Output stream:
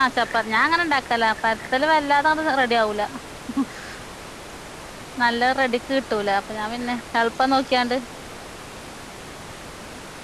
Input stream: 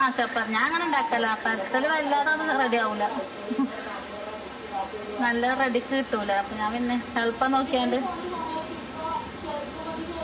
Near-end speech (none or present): present